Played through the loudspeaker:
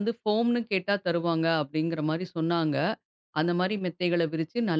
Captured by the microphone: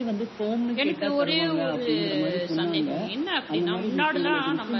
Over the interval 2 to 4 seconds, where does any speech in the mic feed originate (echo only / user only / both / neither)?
both